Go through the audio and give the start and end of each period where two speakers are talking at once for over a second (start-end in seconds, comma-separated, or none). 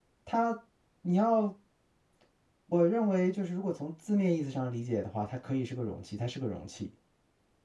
none